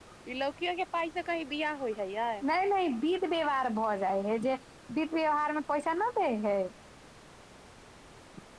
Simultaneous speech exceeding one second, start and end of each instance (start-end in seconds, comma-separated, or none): none